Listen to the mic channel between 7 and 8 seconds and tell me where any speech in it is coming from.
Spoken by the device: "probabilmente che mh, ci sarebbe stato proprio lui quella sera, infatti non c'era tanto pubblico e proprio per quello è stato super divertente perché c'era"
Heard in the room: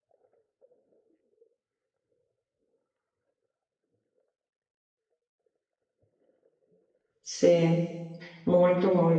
user only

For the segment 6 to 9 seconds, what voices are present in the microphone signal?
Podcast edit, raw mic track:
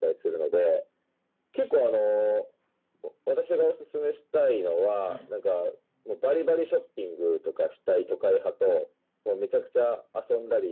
echo only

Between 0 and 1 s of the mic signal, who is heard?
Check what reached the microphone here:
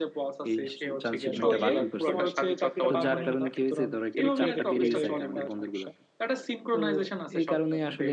echo only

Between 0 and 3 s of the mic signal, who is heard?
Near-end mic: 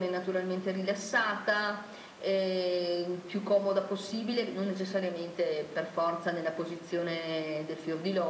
echo only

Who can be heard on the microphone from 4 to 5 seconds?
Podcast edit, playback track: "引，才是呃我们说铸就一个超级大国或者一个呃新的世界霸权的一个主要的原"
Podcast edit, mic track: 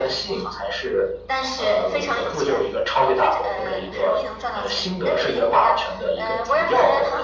both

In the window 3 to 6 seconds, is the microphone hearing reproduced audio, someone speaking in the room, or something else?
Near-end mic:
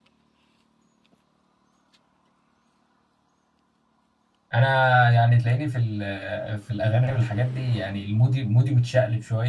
user only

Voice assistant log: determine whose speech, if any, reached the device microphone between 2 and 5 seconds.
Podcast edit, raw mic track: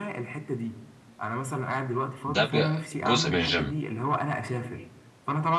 both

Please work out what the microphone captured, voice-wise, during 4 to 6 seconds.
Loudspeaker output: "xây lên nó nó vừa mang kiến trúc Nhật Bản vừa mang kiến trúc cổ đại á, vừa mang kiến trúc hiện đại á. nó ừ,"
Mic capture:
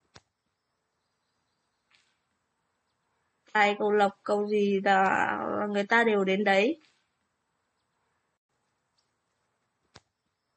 user only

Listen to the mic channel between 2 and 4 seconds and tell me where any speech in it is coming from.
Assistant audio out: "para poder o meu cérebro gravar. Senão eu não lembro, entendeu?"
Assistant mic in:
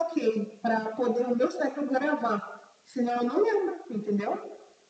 echo only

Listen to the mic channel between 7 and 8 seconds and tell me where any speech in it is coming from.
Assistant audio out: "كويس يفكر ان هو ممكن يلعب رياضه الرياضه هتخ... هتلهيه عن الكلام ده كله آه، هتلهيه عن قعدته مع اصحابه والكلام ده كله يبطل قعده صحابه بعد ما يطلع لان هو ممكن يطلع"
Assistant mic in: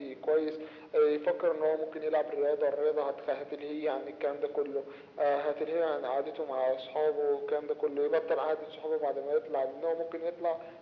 echo only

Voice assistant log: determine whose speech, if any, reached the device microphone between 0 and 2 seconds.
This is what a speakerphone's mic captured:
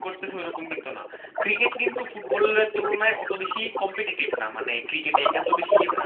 both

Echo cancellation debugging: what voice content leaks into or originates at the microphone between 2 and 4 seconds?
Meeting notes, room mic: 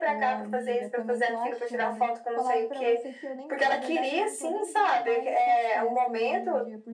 both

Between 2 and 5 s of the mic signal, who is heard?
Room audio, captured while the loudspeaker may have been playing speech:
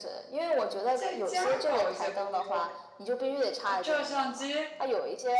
echo only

